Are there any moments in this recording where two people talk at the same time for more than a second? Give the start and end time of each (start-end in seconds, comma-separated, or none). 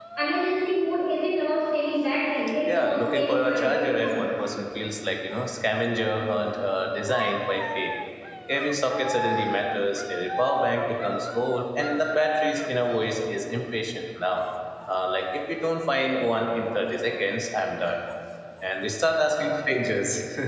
2.6-4.1